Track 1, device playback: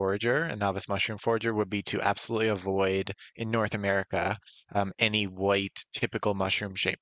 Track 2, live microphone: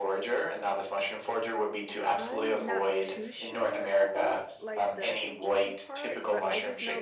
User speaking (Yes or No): Yes